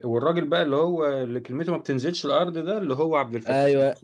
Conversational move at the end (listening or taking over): taking over